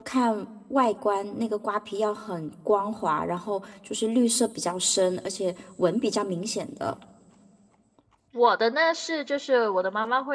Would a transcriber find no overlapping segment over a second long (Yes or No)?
Yes